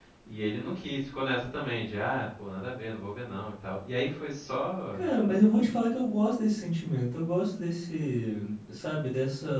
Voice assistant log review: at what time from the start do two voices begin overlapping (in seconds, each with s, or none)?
none